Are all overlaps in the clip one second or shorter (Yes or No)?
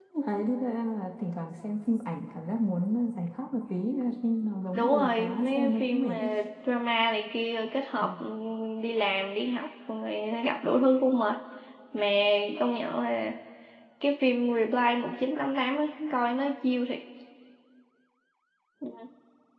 No